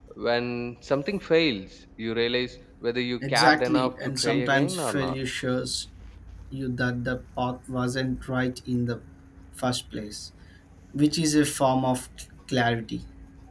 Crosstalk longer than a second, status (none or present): present